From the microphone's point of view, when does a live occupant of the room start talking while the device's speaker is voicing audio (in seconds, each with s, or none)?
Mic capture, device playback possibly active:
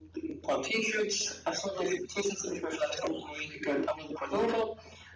none